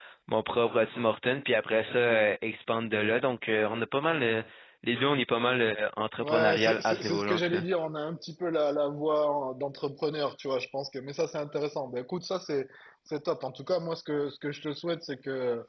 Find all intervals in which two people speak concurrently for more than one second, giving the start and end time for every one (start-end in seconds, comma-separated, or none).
6.2-7.6